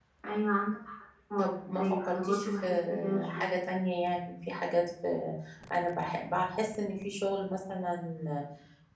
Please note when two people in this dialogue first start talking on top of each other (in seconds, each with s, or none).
1.4 s